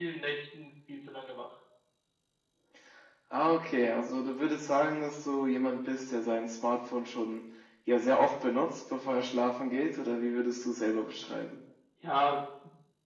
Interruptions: none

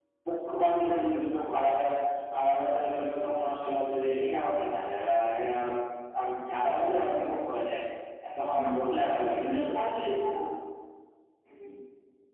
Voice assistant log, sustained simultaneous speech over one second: none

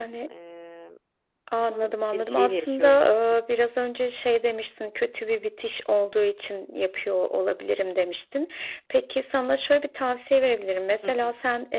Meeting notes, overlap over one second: present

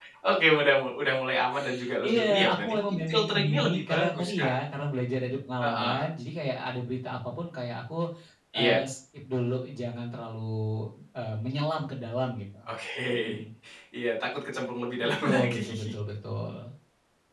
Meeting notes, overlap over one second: present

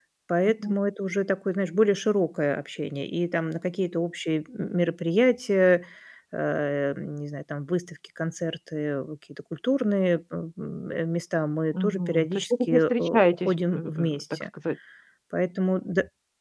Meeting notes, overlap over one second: present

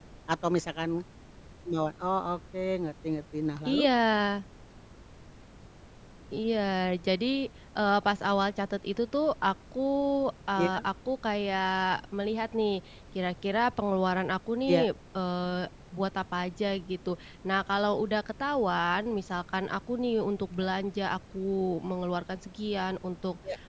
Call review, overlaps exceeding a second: none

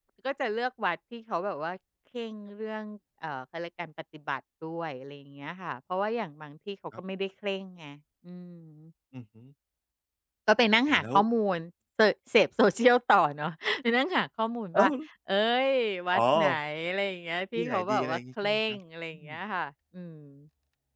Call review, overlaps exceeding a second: present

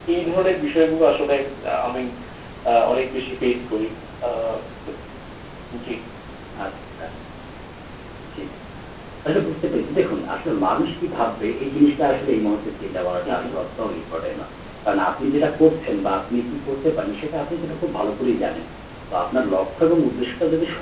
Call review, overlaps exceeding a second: none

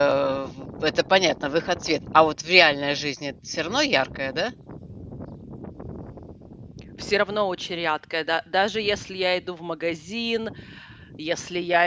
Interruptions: none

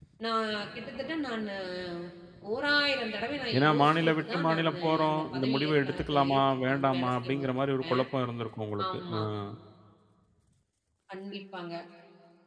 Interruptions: present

